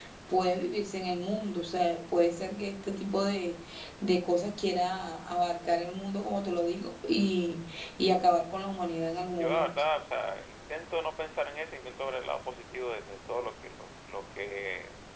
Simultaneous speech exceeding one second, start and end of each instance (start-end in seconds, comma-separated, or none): none